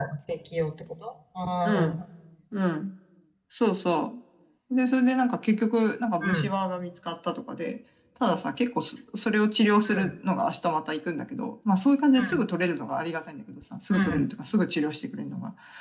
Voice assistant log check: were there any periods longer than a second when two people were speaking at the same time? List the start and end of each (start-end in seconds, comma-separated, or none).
none